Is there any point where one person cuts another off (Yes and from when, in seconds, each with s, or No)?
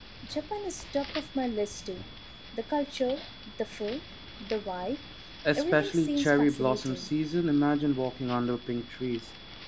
Yes, from 5.6 s